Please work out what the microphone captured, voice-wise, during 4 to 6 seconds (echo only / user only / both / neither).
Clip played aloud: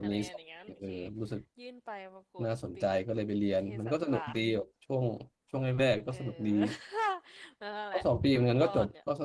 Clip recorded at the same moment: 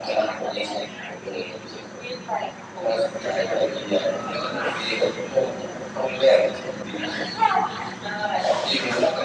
echo only